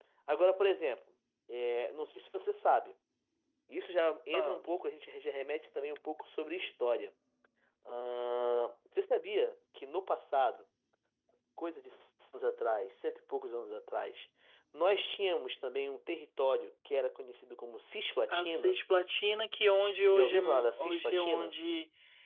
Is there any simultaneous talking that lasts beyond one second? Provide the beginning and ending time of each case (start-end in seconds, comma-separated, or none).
20.1-21.5